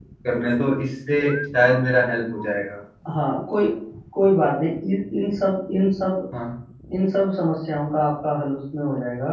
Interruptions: none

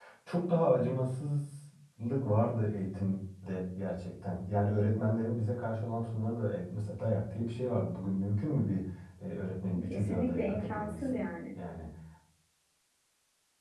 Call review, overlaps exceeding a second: present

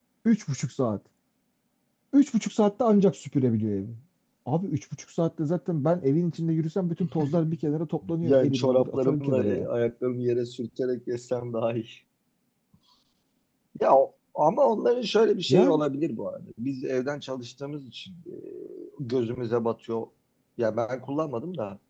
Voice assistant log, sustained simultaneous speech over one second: present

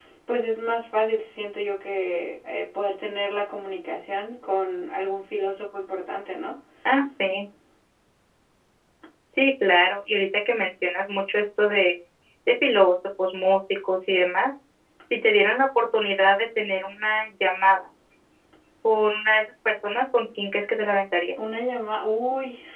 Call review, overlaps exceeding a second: none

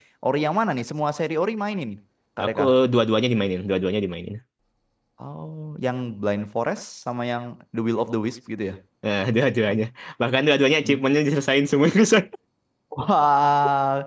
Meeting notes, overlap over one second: none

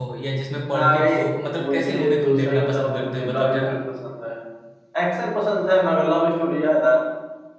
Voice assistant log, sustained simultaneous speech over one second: present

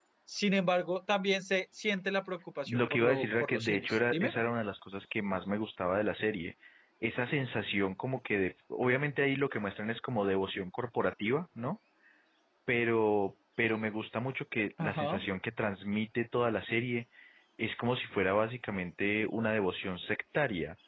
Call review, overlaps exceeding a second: present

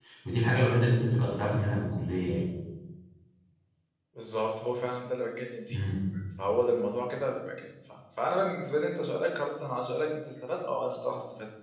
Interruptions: none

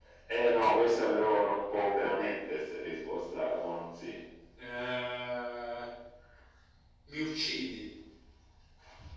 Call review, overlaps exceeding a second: none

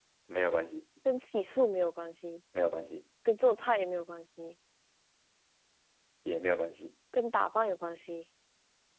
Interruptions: none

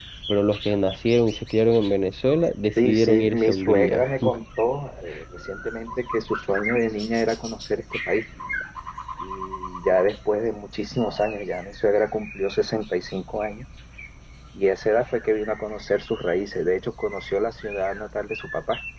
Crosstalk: present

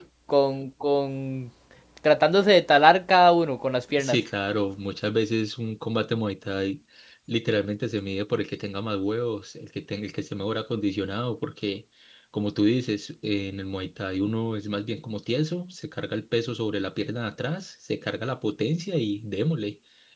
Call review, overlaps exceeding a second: none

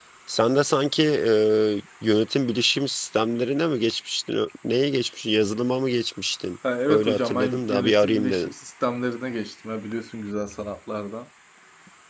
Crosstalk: present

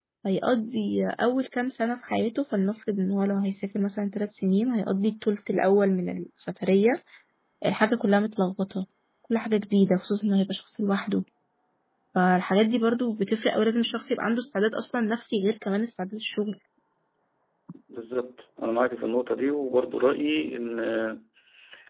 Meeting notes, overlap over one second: none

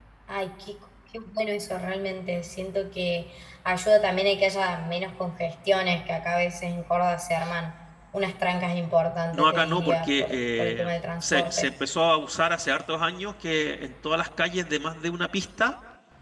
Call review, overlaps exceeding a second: present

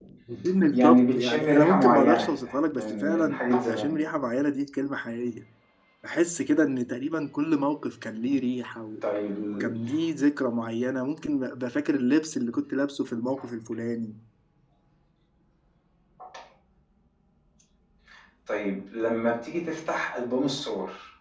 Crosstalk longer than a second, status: present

